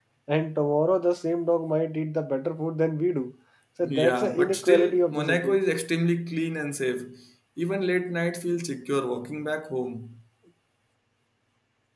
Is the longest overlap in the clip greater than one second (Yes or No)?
Yes